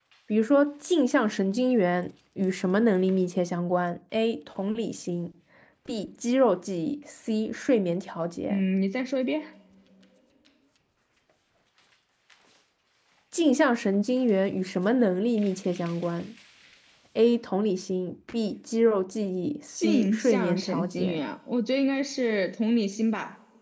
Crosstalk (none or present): present